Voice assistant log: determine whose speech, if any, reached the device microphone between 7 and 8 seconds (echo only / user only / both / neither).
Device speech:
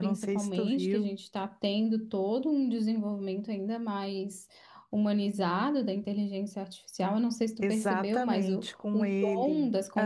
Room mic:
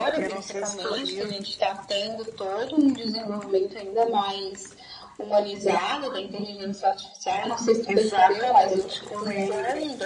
echo only